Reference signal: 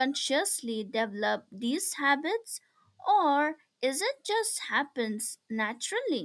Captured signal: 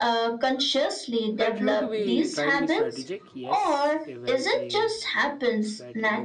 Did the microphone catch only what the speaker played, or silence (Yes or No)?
No